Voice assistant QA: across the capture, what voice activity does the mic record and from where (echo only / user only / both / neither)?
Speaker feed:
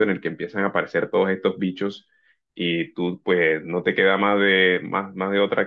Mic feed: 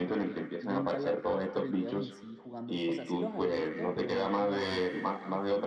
both